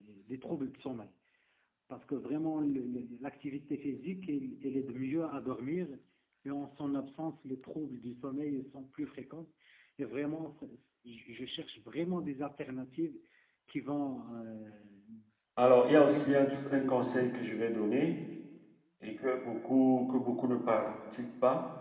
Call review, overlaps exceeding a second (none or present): present